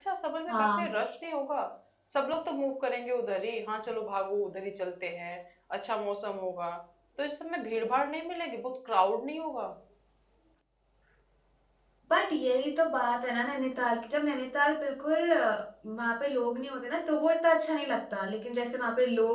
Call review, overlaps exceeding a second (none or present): none